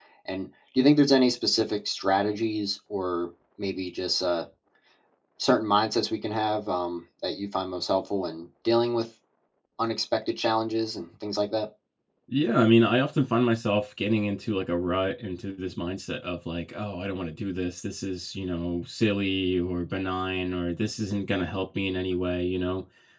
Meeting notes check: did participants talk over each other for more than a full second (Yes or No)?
No